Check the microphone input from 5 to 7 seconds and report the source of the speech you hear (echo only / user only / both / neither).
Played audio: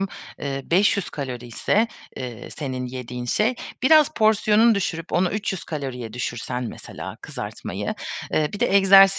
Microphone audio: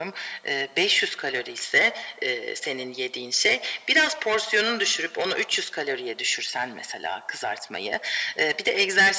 echo only